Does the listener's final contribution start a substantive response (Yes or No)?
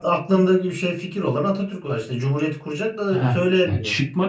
Yes